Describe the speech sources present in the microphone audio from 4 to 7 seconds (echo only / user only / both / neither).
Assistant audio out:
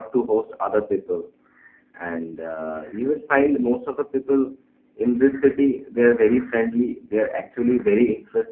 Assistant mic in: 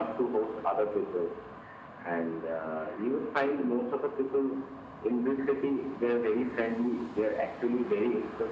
echo only